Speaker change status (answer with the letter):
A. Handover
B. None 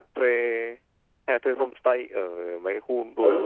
A